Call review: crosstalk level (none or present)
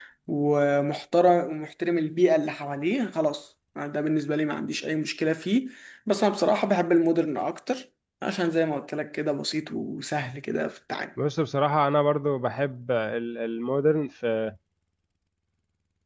none